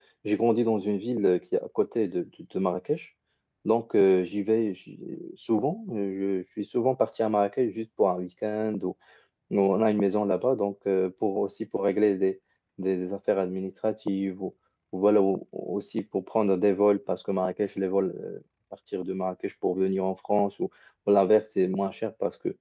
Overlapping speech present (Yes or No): No